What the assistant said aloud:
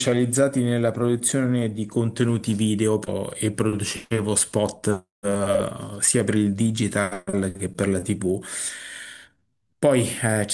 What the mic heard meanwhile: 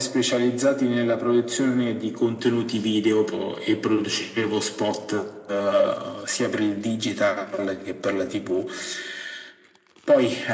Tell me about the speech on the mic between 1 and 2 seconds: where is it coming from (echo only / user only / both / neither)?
echo only